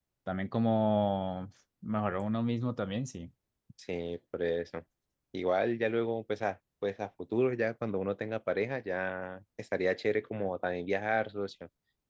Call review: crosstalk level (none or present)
none